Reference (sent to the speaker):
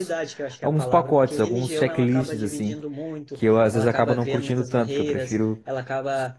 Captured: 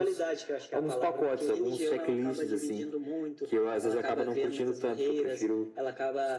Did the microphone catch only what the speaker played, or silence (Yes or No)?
Yes